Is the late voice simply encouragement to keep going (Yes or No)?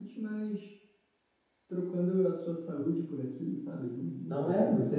No